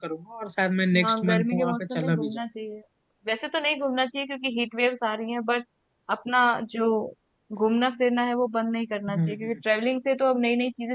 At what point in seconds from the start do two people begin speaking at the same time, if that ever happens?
1.0 s

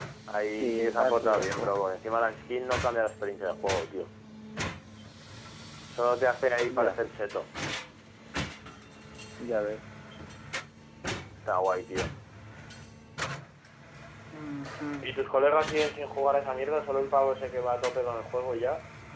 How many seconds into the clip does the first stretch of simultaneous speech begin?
0.5 s

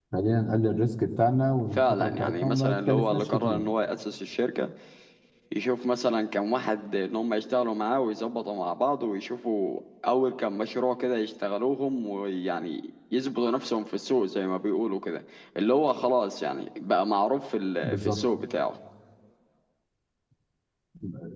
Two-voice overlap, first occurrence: 1.7 s

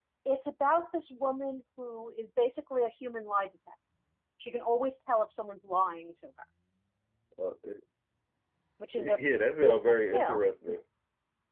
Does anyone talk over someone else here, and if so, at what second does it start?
9.0 s

